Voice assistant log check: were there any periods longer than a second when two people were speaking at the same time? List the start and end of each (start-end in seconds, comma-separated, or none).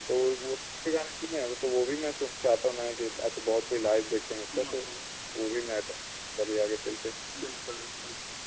none